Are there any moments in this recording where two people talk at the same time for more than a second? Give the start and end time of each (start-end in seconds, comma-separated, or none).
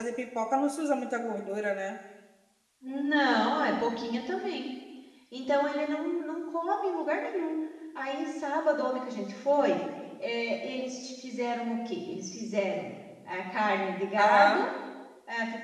none